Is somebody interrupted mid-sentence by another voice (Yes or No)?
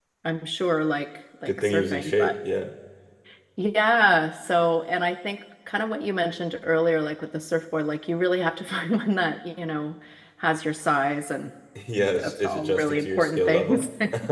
Yes